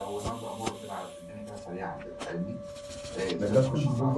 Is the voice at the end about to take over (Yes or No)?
Yes